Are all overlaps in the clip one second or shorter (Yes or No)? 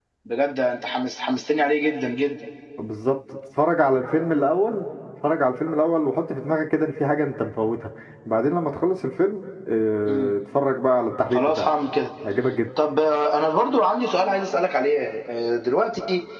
Yes